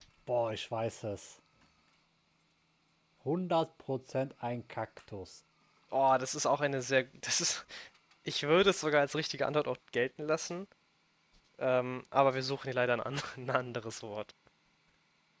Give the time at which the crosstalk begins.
none

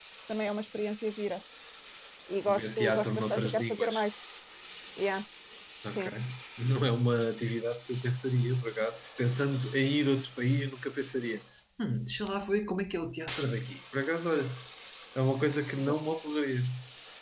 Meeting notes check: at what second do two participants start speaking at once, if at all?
2.6 s

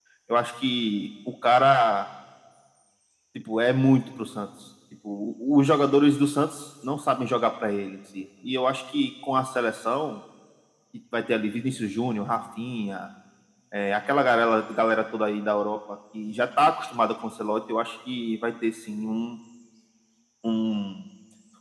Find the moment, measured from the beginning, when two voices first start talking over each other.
none

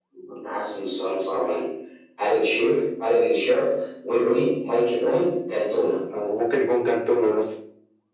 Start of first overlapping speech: none

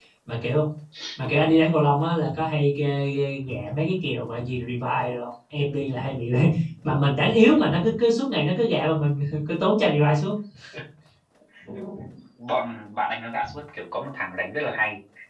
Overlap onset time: none

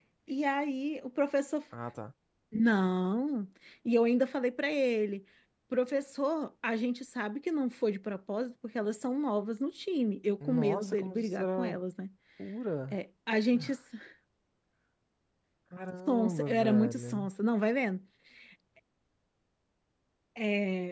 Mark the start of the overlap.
10.4 s

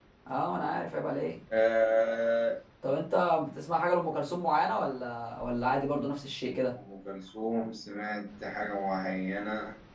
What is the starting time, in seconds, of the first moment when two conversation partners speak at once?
none

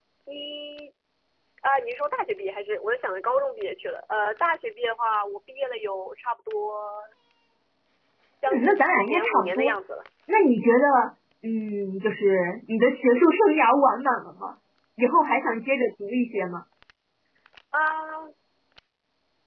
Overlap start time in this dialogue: 8.5 s

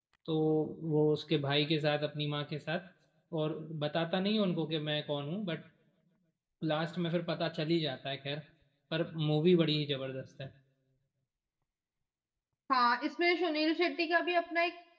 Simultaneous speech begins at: none

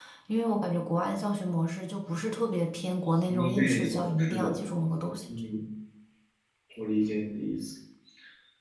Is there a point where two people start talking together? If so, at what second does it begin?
3.3 s

